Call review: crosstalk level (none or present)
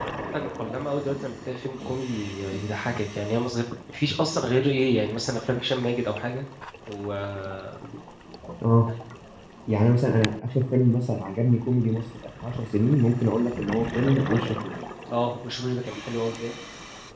none